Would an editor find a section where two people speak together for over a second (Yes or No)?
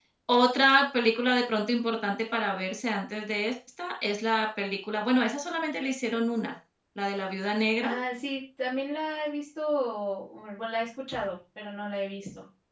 No